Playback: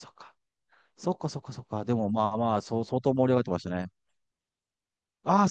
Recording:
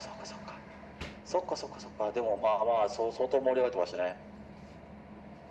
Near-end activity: none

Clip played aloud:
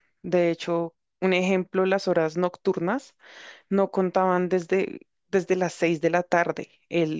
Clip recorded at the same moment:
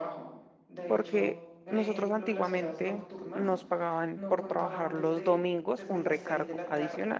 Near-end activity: present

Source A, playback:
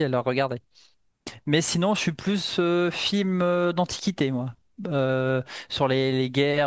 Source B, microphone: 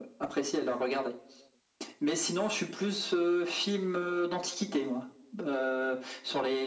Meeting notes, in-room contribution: none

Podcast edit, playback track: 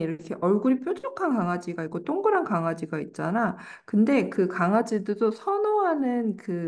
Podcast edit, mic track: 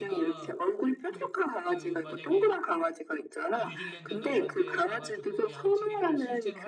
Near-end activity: present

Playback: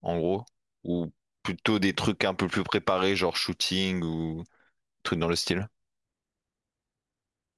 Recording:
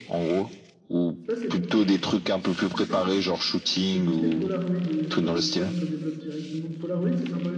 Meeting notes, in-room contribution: present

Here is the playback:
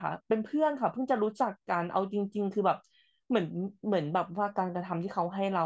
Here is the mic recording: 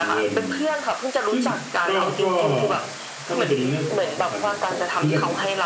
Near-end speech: present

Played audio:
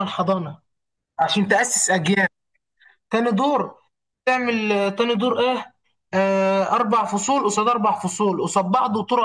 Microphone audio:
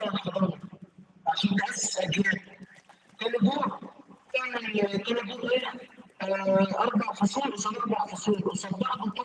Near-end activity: none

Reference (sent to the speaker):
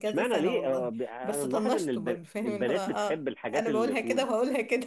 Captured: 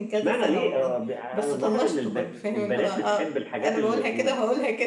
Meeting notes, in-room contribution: none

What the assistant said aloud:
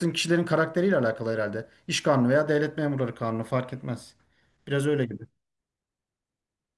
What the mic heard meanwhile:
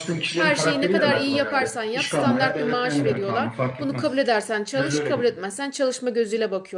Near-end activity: present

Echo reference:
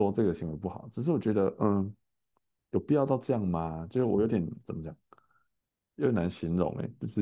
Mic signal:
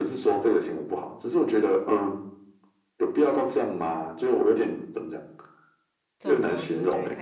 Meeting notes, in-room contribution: present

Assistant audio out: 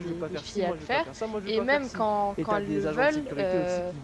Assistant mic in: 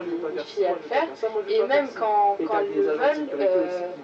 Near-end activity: none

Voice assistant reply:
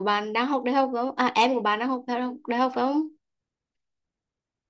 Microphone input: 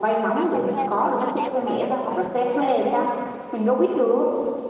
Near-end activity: present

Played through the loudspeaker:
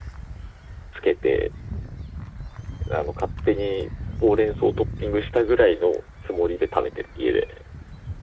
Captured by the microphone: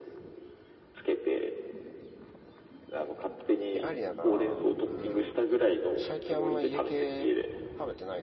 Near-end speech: present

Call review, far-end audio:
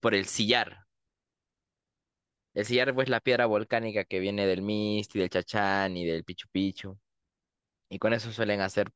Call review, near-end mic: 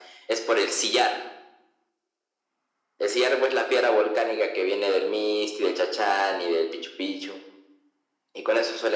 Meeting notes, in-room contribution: none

